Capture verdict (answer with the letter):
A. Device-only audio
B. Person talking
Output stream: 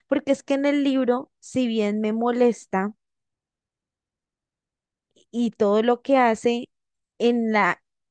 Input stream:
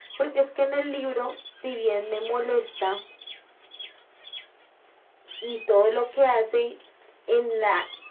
A